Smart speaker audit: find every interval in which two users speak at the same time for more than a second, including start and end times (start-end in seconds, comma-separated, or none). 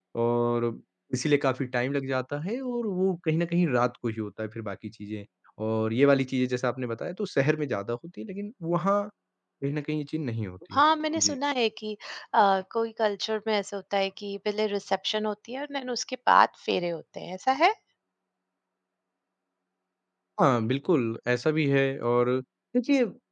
none